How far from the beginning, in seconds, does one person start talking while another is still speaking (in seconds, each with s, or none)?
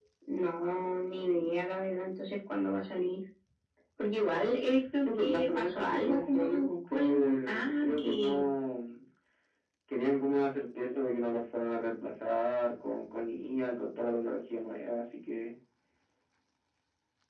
5.0 s